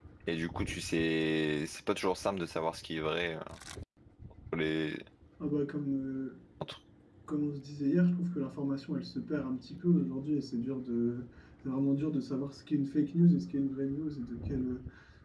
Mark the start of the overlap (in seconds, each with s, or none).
none